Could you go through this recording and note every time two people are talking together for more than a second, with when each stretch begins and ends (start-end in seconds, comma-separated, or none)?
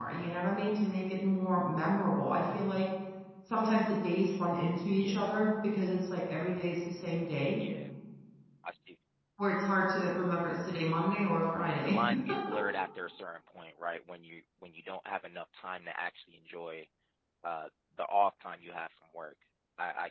none